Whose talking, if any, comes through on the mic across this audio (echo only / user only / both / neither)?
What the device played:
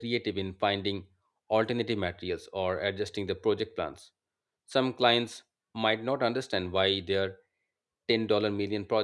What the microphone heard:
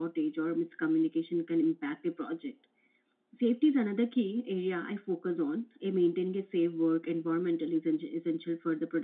user only